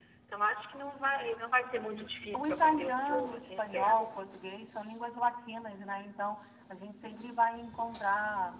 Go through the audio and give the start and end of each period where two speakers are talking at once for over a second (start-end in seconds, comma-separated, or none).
2.3-4.1